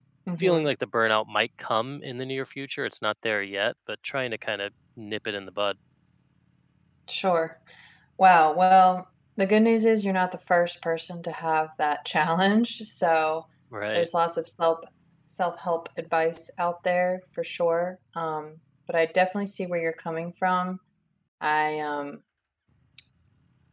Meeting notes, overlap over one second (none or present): none